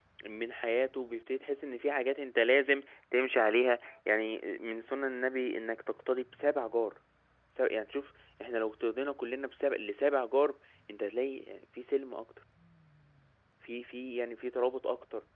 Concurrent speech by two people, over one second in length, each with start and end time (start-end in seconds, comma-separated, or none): none